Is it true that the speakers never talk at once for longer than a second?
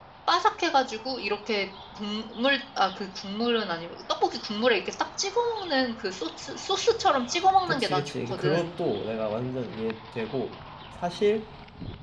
No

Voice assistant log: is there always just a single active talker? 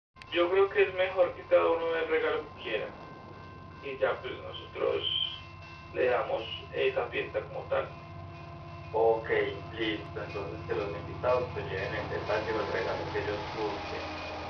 Yes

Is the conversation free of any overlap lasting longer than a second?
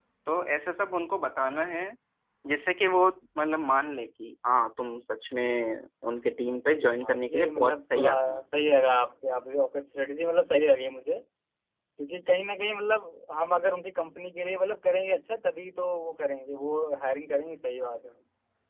No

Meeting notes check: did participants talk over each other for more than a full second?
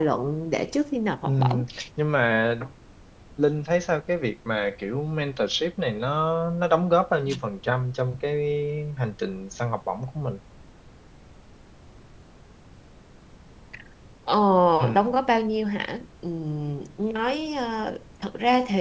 No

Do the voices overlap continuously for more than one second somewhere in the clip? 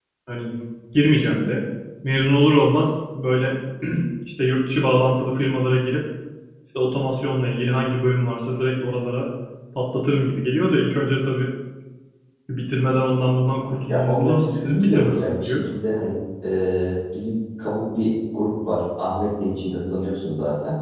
Yes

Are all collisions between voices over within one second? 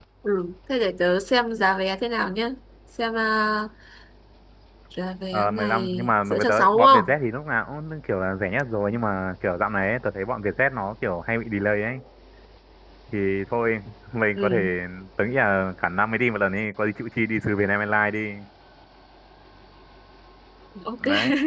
No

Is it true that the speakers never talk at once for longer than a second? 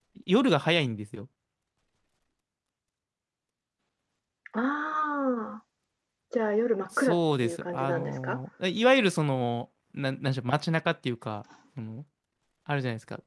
No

